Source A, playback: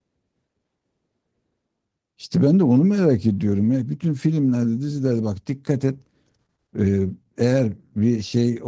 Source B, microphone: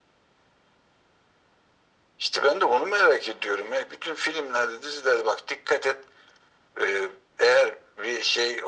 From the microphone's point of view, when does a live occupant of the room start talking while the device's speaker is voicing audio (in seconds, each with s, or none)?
none